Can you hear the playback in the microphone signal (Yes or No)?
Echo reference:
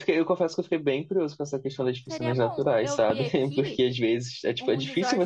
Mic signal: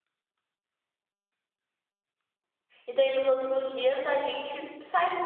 No